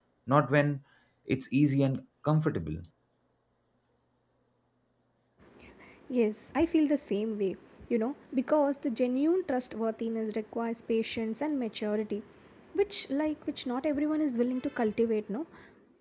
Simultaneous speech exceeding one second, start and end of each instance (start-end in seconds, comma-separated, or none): none